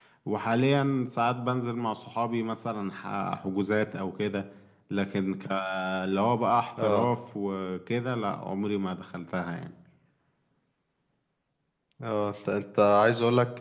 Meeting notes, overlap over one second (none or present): none